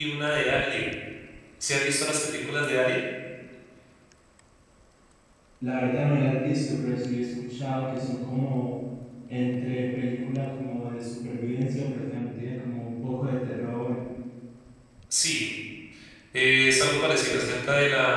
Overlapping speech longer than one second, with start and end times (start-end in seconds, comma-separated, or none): none